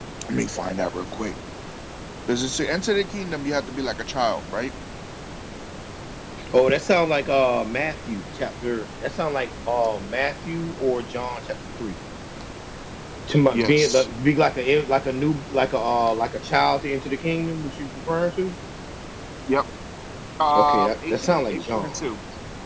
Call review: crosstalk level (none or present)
present